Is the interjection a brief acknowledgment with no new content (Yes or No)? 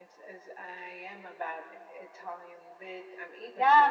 No